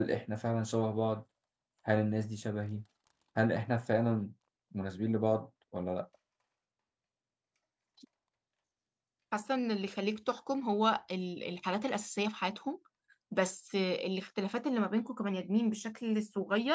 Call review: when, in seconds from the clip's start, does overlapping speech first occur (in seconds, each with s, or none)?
none